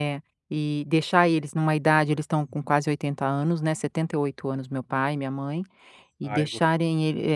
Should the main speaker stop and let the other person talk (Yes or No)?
No